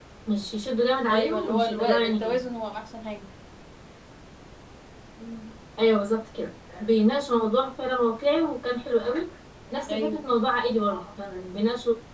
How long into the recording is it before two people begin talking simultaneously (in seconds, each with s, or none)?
1.1 s